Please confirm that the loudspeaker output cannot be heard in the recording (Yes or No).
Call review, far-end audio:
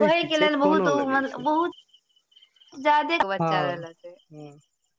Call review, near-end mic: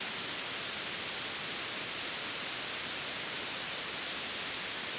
Yes